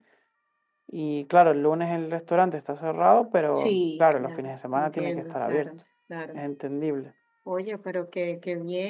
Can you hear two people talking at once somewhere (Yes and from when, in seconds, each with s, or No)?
Yes, from 3.6 s